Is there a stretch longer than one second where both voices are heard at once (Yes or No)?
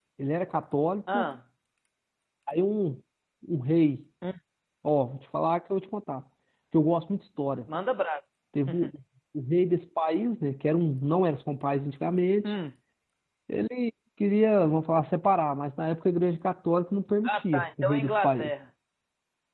Yes